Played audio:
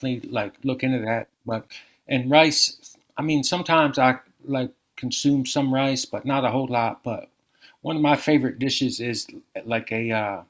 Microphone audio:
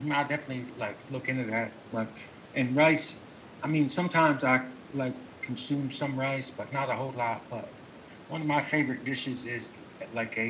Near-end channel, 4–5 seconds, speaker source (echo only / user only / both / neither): echo only